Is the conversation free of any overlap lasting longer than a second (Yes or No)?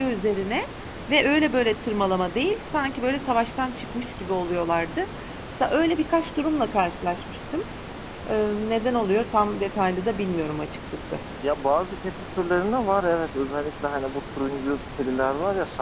Yes